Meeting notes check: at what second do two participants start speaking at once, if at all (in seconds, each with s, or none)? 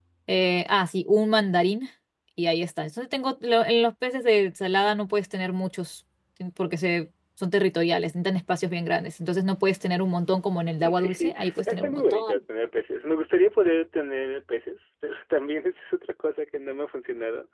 10.8 s